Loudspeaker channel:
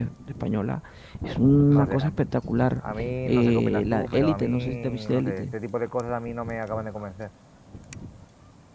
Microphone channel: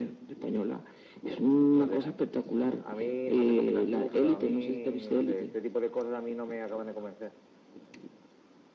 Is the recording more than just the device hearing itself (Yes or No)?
No